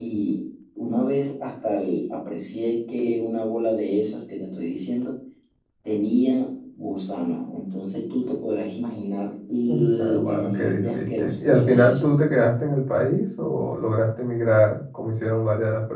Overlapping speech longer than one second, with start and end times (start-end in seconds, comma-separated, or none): 9.7-12.1